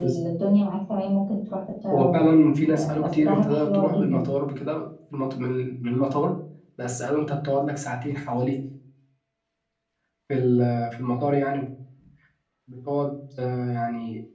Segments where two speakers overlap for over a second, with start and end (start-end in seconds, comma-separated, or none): 2.8-4.3